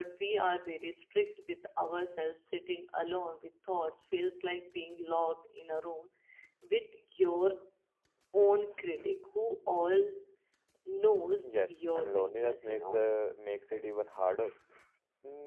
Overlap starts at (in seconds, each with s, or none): 11.4 s